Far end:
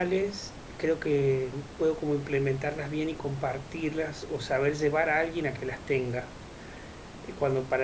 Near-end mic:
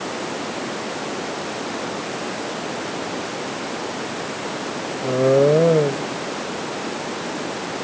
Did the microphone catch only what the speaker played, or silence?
No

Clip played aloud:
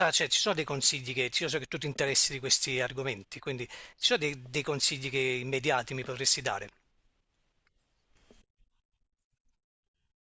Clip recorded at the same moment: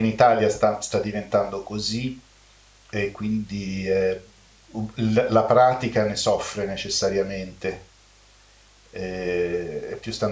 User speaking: Yes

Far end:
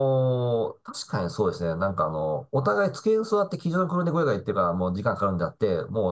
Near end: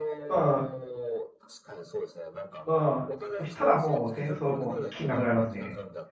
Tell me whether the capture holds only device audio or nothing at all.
No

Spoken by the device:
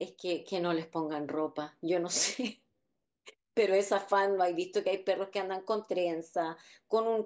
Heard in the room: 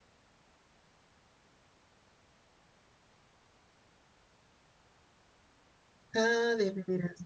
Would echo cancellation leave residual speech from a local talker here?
Yes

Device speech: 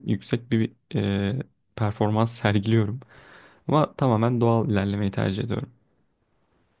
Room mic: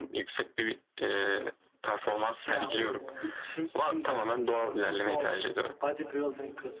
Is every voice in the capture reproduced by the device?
No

